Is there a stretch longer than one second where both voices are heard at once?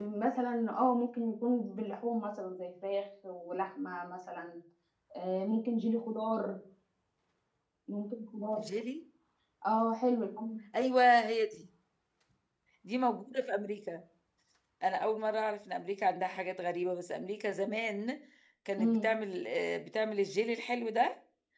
No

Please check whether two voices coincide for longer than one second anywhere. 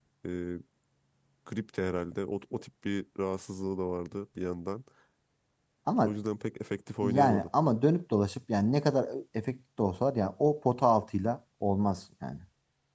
No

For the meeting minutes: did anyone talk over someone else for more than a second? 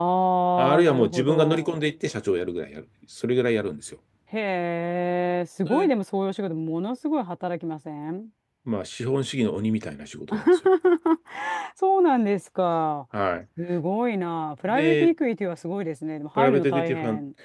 Yes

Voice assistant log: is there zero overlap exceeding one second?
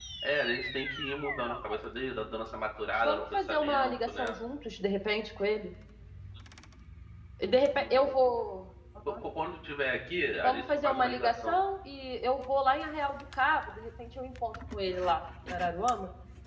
No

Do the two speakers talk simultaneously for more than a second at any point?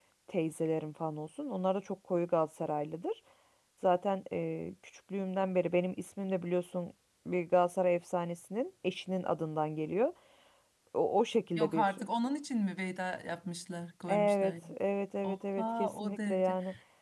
Yes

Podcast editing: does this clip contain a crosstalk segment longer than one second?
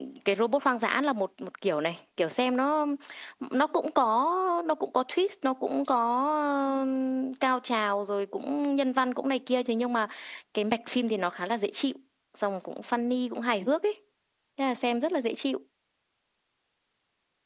No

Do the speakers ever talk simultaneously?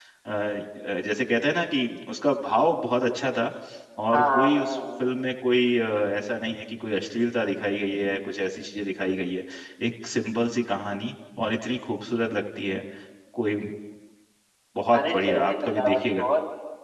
Yes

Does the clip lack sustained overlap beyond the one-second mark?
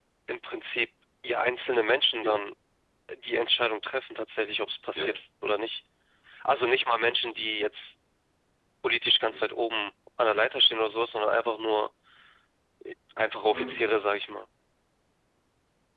Yes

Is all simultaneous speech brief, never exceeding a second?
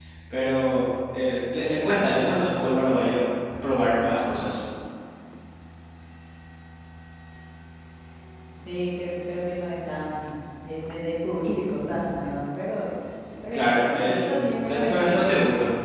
No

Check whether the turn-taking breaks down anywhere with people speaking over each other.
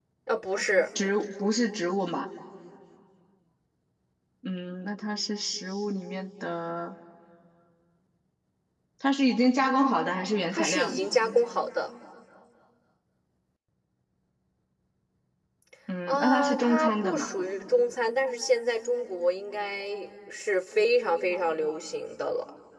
Yes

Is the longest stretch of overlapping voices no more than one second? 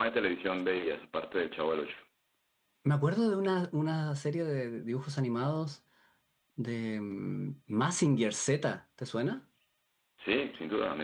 Yes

